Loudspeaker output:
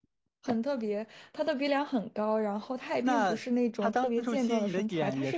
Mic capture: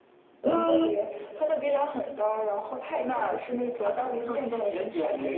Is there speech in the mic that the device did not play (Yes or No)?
Yes